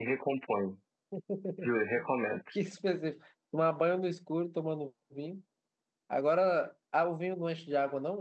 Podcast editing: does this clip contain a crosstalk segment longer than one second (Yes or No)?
No